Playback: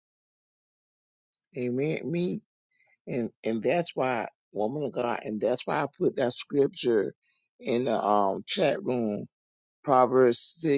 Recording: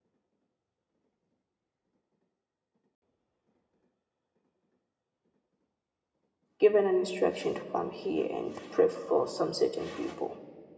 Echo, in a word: none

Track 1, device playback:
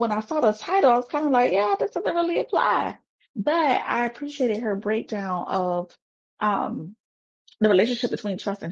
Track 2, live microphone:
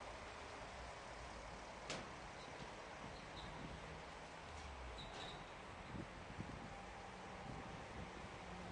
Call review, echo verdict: none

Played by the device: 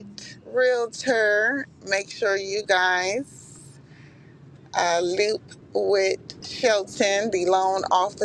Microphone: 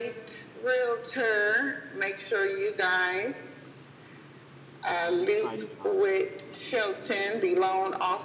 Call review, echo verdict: present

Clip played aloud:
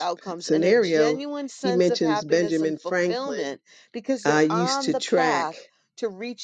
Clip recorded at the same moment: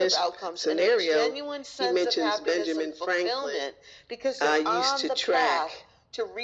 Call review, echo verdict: present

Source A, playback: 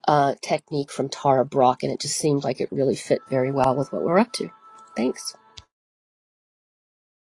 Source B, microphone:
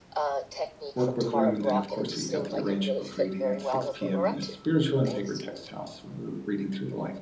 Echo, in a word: present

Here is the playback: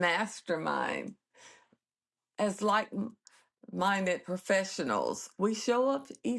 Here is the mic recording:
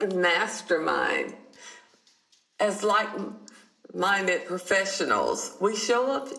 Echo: present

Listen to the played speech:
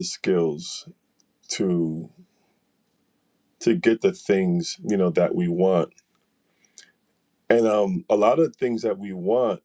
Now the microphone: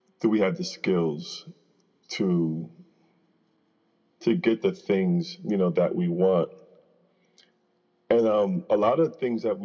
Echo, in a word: present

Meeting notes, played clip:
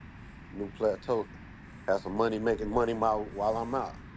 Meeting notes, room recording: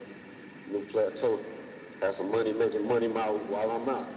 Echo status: present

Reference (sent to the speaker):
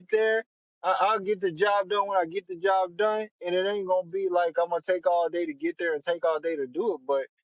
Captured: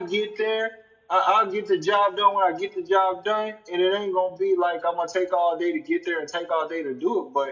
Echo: present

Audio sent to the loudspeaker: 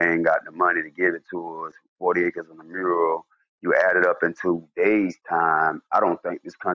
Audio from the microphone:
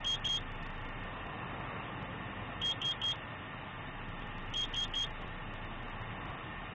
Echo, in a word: none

